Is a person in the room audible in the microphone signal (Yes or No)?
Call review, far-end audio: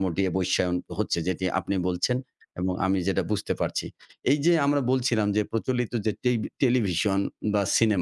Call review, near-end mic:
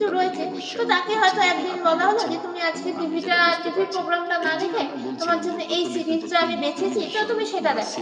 Yes